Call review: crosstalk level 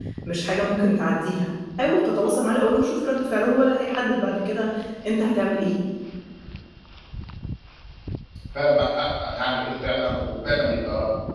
none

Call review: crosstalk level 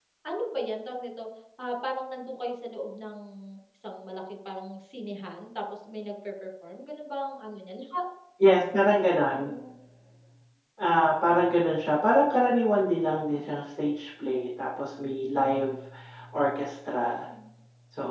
none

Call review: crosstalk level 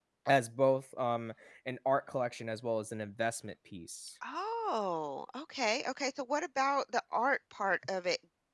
none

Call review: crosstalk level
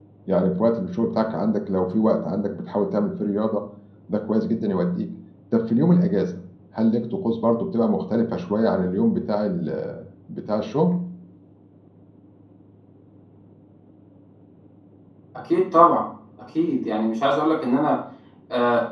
none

